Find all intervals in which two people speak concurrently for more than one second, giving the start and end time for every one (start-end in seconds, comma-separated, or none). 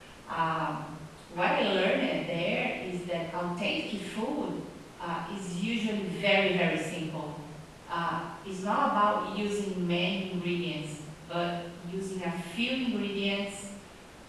none